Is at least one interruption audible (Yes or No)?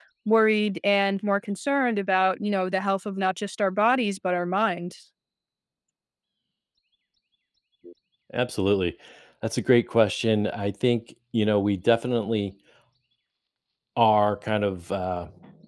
No